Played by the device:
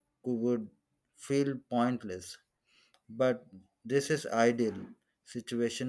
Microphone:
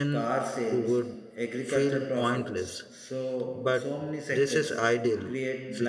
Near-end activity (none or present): present